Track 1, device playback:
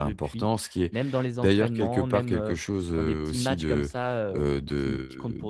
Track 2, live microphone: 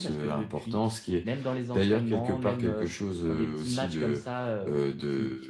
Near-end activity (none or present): none